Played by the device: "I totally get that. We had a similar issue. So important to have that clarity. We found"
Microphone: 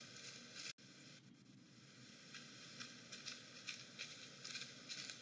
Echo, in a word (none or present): none